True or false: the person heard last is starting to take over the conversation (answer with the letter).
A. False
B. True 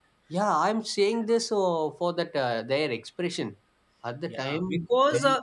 B